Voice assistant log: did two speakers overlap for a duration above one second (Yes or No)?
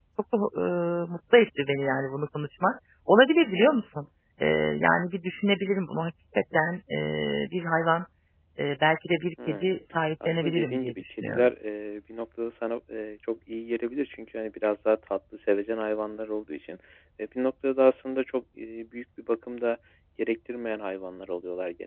Yes